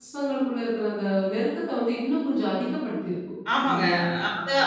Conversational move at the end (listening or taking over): taking over